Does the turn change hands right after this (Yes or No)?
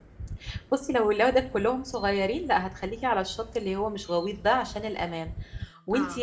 No